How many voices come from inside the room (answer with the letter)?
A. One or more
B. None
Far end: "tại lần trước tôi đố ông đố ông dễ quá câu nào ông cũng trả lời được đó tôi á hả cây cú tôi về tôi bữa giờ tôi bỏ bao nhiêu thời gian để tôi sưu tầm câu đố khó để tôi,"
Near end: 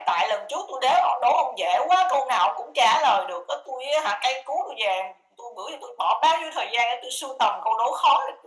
B